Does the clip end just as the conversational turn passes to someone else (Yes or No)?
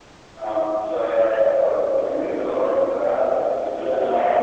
Yes